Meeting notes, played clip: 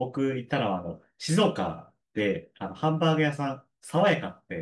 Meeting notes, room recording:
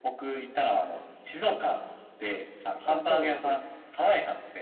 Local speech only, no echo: あ、そうなんです。

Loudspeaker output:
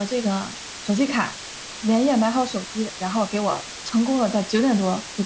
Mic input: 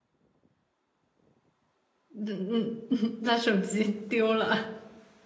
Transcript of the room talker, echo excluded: 嗯嗯，他手机丢了。

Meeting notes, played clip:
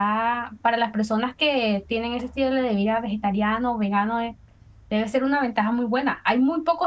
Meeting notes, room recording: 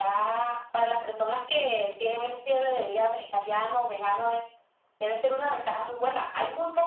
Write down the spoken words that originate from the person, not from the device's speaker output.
none

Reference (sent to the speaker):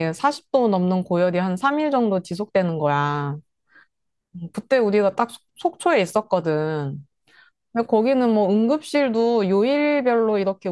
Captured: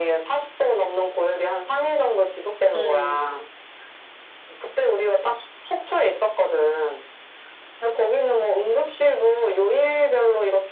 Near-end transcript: 응.

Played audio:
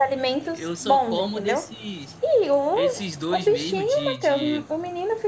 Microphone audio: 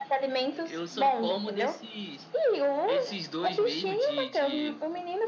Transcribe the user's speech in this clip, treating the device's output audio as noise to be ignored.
none

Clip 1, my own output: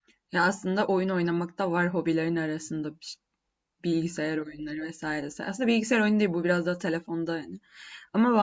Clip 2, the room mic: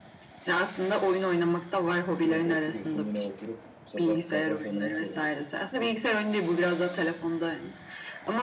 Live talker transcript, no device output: sürekli oturuyorsun yine oturup sata- satranç oynamak zorundasın.

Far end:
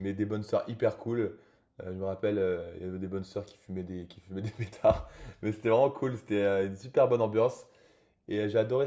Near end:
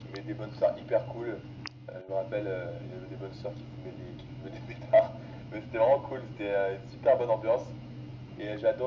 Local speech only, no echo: none

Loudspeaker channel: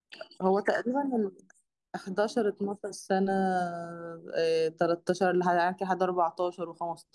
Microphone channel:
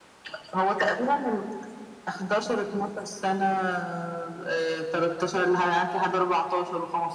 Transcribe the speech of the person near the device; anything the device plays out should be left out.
none

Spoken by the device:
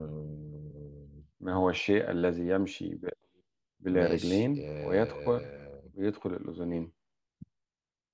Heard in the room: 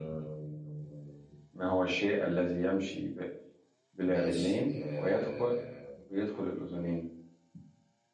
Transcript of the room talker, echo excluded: none

